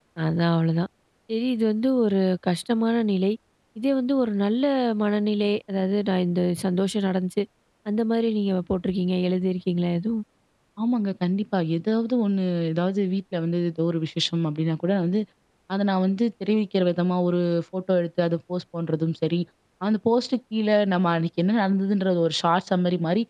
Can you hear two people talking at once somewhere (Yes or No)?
No